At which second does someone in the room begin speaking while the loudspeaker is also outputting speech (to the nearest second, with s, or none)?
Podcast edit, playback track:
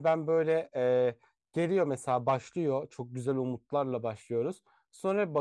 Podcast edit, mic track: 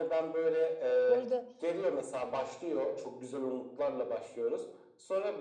1 s